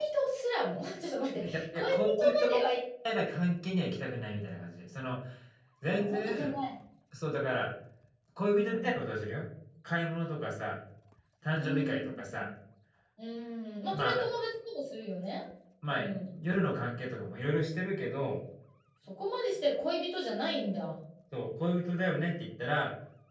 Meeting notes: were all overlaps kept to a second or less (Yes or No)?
No